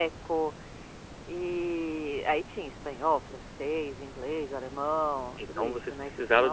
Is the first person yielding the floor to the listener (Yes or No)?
Yes